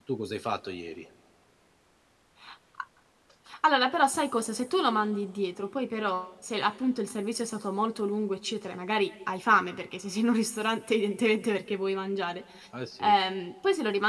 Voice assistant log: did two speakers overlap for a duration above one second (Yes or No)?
No